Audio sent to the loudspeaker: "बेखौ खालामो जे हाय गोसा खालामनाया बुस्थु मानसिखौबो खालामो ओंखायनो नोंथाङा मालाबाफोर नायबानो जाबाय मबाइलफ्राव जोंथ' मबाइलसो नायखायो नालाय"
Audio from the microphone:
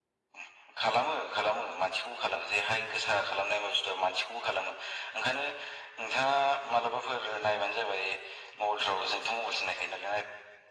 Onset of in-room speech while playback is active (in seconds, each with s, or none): none